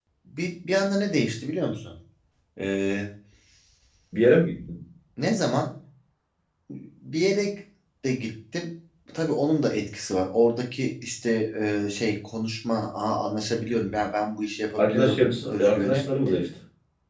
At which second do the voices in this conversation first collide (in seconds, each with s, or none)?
14.8 s